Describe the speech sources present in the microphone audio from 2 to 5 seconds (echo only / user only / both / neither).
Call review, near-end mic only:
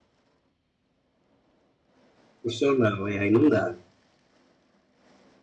user only